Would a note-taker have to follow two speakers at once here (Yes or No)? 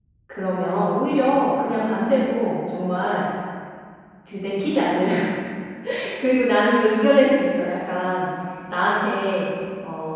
No